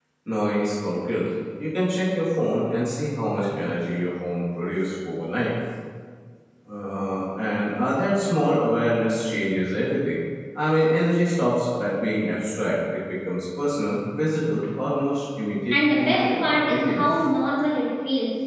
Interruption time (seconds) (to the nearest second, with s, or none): 16 s